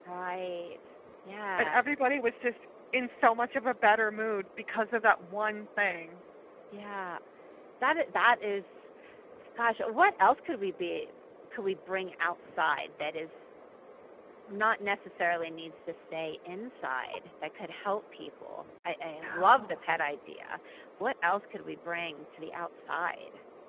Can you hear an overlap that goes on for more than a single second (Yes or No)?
No